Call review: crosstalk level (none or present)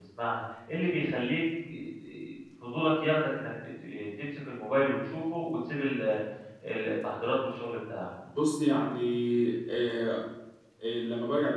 none